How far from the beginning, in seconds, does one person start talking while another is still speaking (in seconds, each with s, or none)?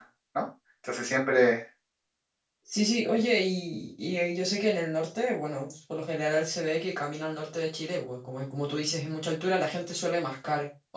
none